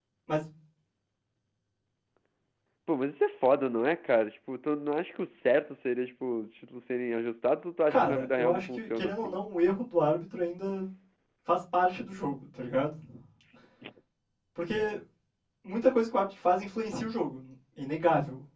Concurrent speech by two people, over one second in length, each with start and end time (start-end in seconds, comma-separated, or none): 7.9-9.4